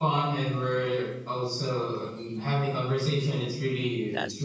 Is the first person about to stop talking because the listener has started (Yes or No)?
No